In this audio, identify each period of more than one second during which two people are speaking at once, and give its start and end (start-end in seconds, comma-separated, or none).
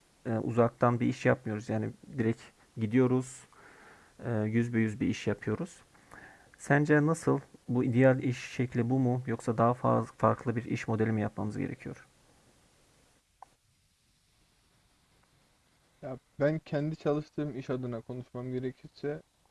none